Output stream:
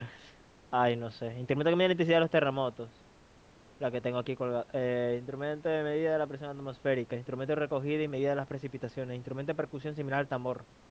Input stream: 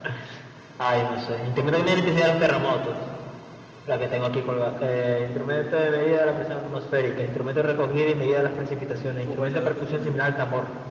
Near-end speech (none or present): present